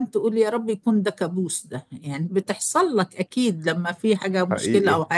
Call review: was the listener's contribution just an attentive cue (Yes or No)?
Yes